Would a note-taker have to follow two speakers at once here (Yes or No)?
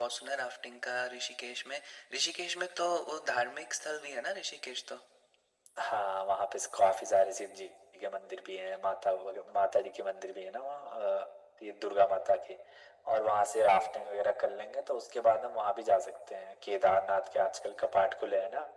No